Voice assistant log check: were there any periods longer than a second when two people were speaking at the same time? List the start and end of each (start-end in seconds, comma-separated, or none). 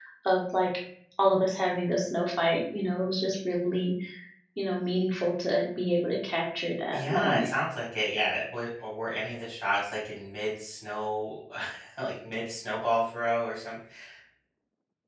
none